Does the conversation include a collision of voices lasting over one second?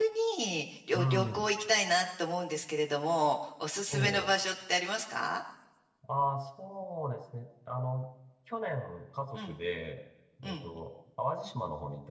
No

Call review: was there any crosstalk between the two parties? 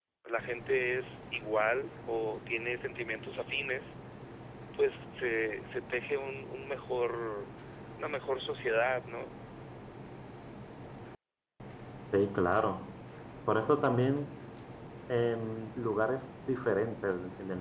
No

